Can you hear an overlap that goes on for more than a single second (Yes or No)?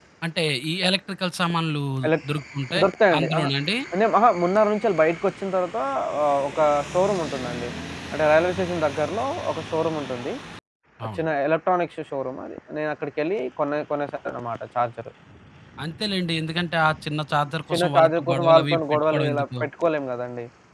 Yes